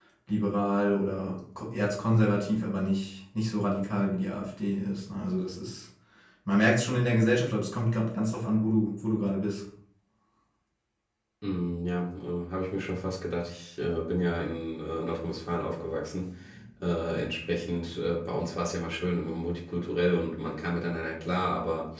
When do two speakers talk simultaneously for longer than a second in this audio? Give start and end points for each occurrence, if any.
none

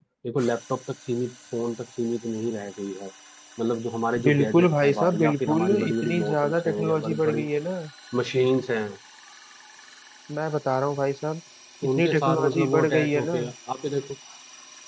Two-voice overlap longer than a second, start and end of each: 4.2-7.5, 12.0-13.3

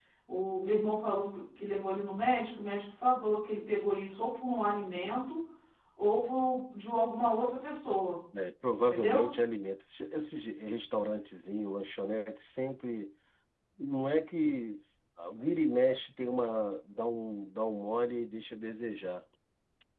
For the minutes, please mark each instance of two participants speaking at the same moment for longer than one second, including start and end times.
none

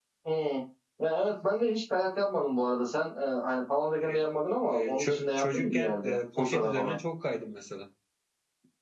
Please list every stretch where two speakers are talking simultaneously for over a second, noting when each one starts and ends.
4.8-7.0

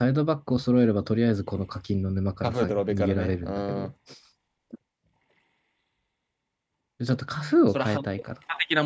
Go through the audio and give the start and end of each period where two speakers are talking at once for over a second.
2.4-3.9

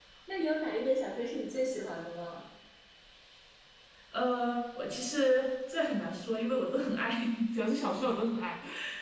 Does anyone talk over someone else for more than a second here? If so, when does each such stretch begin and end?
none

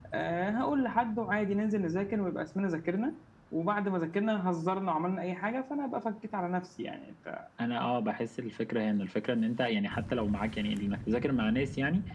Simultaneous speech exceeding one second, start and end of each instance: none

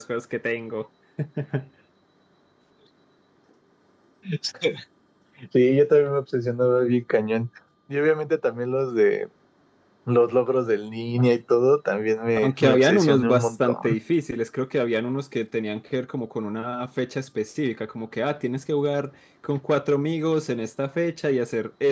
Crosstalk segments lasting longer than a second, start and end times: 12.4-13.9

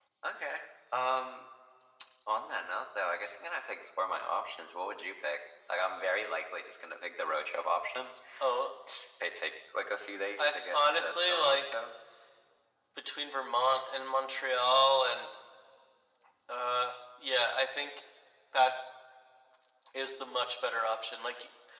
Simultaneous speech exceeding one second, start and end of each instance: 10.4-11.6

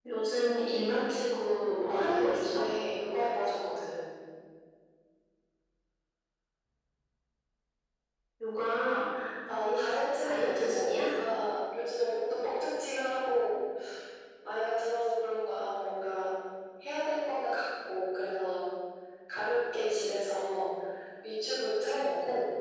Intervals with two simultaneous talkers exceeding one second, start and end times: 1.4-2.6, 9.5-11.0

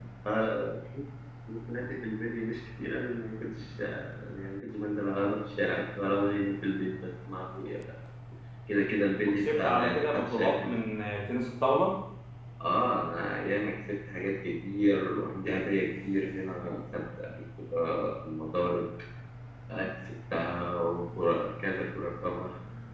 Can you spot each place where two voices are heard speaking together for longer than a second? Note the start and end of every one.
9.4-10.8

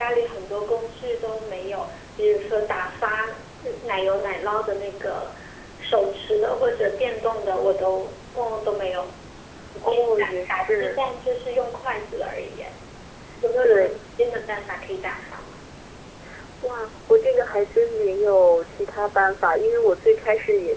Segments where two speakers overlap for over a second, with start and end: 9.9-11.1

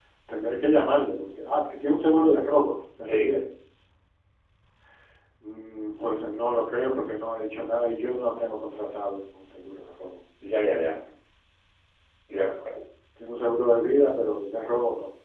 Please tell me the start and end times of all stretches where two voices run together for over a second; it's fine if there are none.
none

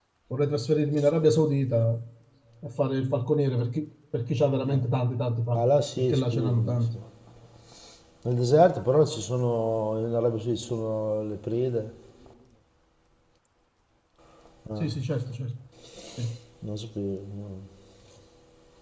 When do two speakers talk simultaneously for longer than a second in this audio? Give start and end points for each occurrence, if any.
5.5-7.0

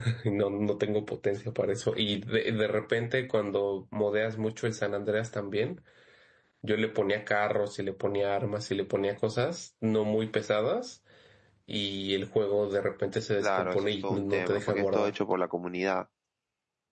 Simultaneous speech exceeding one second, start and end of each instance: 13.4-15.1

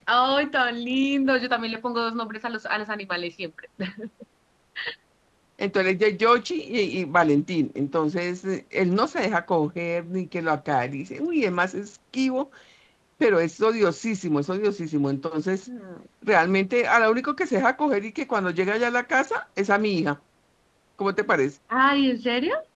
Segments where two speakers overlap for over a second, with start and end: none

